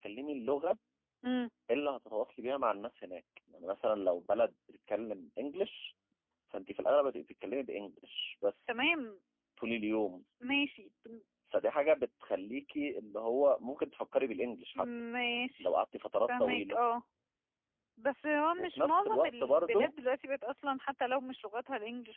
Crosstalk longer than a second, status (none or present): present